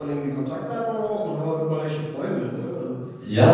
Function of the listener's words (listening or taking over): taking over